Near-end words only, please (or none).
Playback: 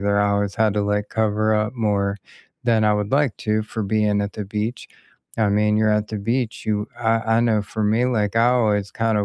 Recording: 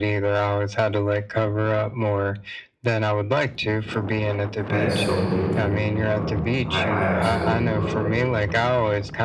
that is so beautiful. Um, I I absolutely love it.